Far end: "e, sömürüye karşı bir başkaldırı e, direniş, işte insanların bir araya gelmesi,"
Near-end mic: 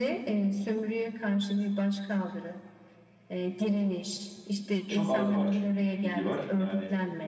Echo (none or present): present